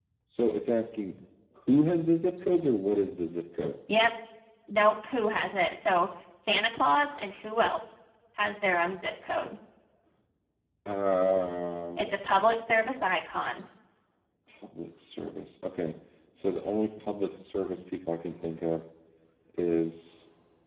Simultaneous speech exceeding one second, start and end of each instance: none

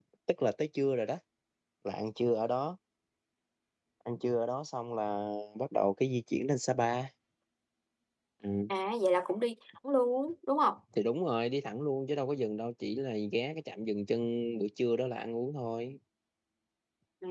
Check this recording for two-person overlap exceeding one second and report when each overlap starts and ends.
none

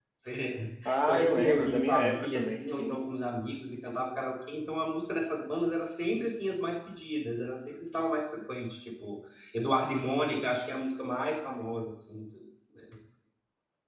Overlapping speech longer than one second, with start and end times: 0.8-3.0

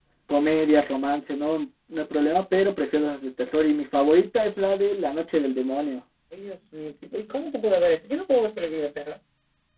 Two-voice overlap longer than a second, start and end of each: none

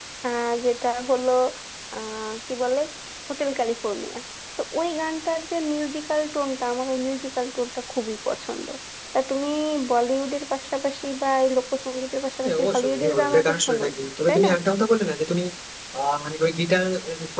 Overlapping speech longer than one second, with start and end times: 12.4-13.8

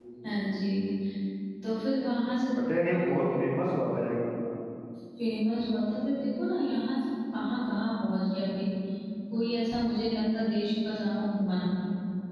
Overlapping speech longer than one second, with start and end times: none

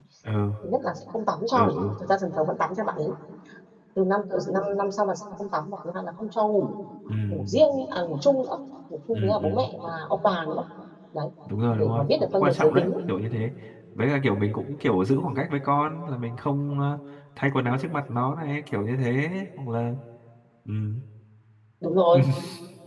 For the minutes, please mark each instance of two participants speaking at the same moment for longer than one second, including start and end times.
11.7-12.9

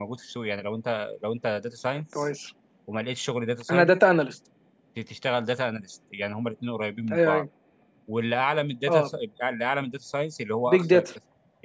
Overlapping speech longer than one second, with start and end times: none

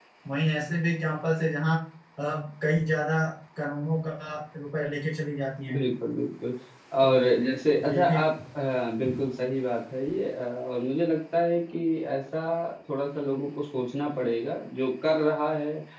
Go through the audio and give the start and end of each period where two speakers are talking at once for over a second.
none

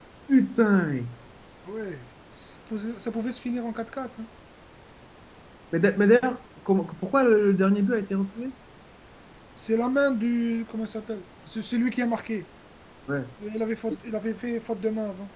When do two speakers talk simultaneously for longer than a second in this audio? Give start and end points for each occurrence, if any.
none

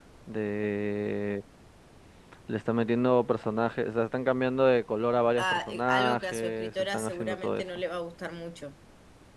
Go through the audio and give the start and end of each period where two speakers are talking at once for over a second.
5.4-7.6

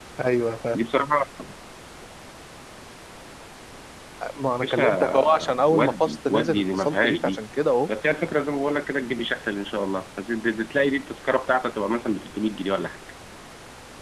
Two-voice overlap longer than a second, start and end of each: 4.6-7.4

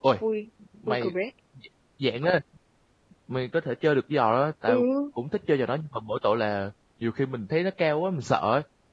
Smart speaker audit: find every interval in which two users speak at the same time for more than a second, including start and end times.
none

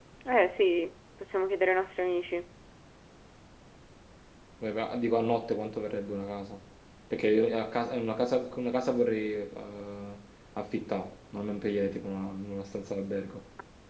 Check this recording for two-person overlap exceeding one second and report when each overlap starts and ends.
none

